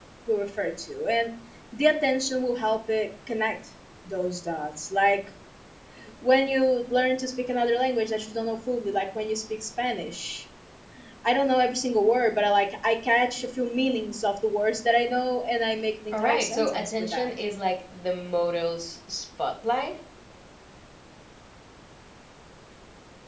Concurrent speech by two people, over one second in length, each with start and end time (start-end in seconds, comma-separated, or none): 16.1-17.3